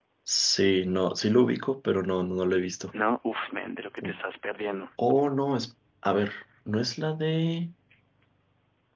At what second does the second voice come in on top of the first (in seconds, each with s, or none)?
none